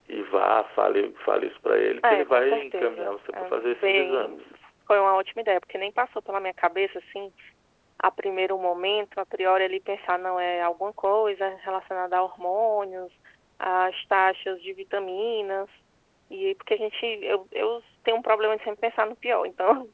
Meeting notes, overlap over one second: present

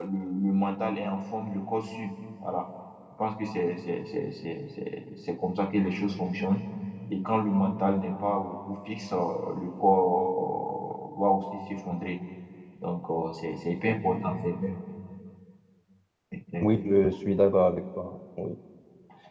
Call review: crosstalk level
none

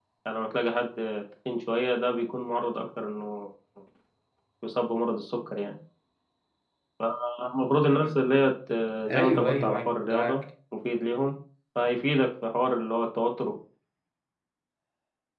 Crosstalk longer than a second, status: present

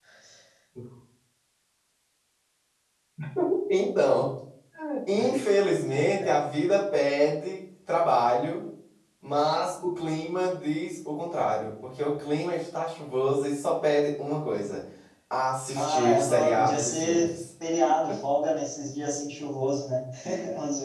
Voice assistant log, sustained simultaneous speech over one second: present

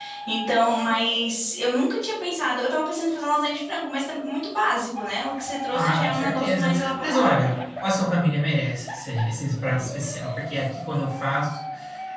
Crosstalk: present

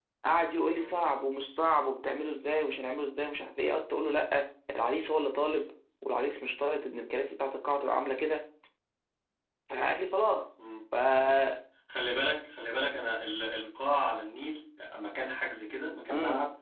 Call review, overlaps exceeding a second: none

